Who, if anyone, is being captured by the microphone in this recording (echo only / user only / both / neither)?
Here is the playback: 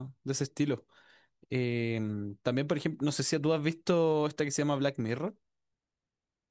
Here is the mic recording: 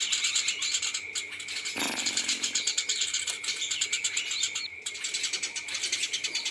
neither